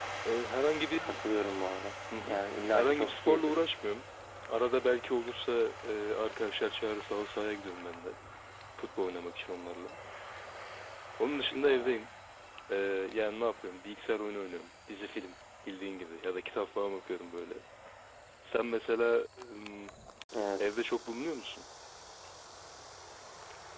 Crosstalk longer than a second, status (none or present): present